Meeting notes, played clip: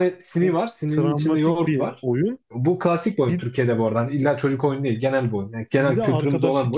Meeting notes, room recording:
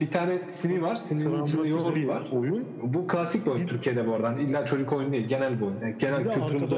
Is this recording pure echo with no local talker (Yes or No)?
No